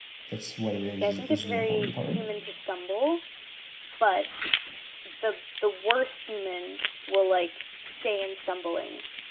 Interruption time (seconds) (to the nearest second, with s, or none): 1 s